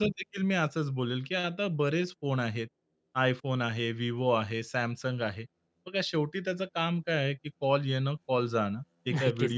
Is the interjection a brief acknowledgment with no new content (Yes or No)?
Yes